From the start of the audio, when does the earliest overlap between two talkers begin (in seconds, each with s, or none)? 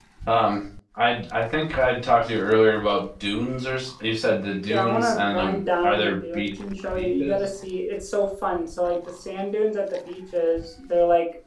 4.7 s